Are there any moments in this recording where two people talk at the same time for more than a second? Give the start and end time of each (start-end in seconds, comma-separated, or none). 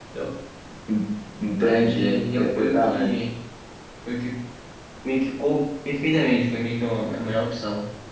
1.6-3.1